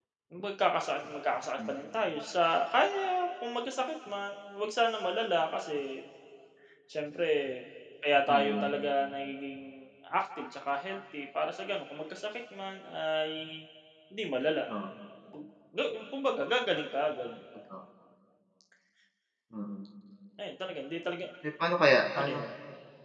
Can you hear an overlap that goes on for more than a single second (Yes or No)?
No